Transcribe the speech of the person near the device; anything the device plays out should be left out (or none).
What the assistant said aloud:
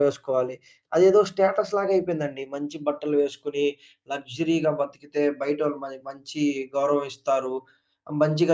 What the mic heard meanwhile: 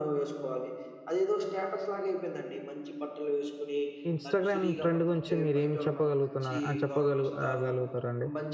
ఇన్‌స్టాగ్రామ్ ట్రెండ్ గురించి మీరేం చెప్పగలుగుతున్నారు? ఆహ్, చెప్పగలుగు ఆహ్, గలుగుతారండి?